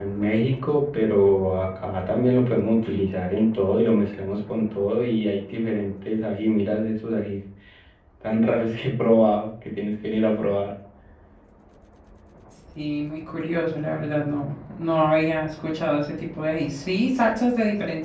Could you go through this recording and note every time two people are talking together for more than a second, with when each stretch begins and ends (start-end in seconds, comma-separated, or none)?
none